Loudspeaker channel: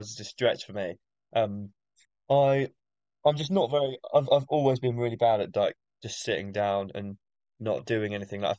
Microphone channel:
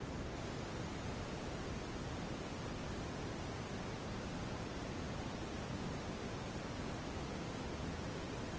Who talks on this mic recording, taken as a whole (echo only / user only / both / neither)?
neither